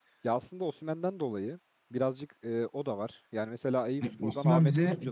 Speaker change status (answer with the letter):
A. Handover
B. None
A